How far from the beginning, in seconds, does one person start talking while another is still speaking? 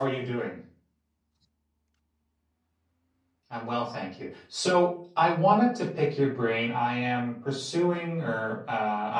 none

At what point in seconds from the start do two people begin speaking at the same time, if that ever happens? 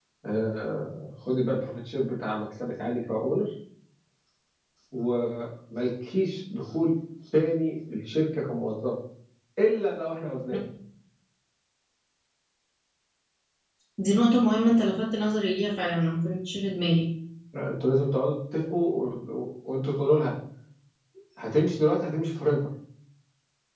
none

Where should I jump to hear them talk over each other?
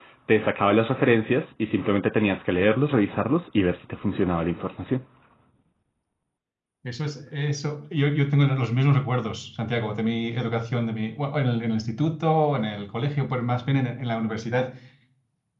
none

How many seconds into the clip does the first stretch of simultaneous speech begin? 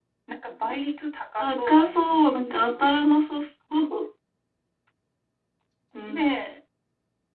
2 s

